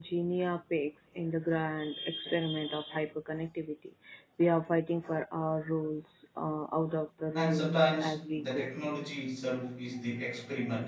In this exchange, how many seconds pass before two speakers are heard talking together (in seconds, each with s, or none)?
7.4 s